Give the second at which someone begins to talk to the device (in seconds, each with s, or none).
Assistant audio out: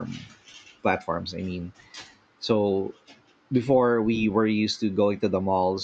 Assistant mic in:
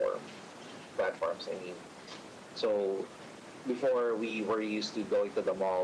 none